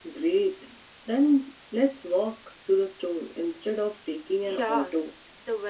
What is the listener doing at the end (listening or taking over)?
taking over